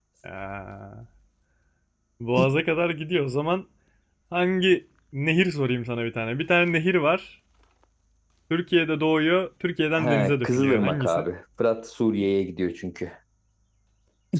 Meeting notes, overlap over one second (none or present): present